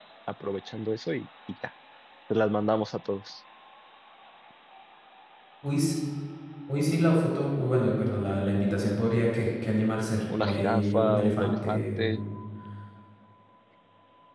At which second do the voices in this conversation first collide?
10.3 s

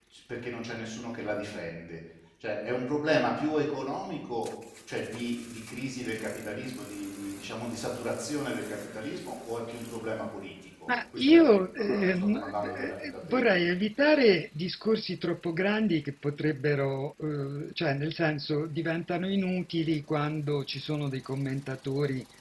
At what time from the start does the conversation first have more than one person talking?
10.9 s

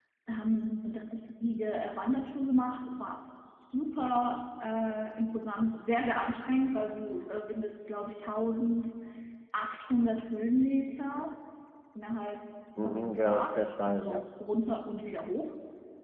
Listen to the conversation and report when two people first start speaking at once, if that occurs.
12.8 s

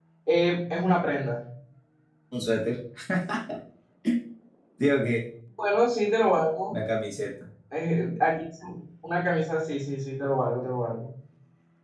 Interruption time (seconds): none

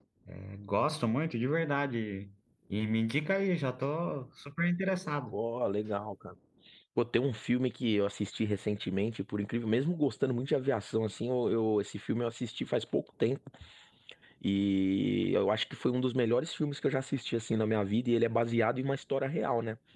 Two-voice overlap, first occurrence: none

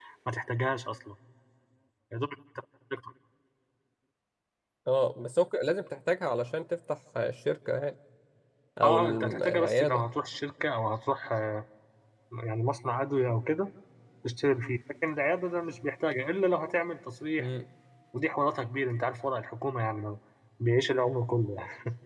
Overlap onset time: 8.8 s

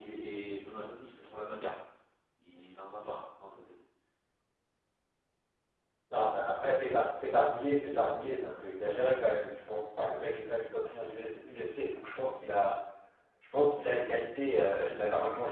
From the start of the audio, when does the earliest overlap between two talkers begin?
none

